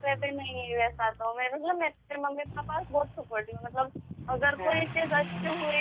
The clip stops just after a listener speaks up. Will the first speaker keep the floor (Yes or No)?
Yes